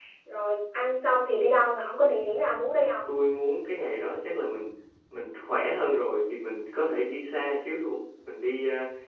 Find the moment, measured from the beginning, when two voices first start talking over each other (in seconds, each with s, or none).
none